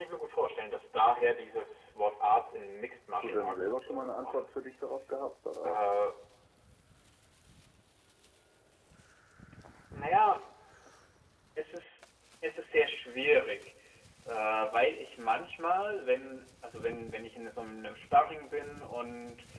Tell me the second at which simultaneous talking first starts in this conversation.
3 s

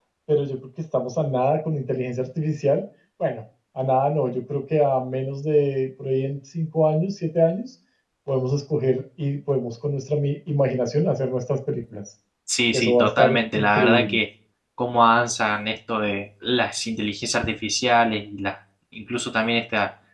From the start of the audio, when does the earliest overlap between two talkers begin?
13 s

